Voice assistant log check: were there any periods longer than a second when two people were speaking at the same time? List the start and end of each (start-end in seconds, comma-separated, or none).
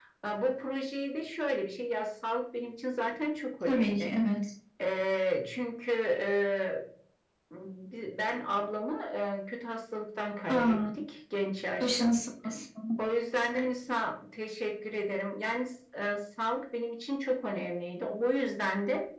none